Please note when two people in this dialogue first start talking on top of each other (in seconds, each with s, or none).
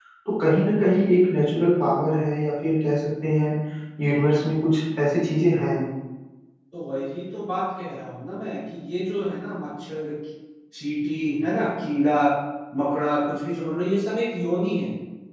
none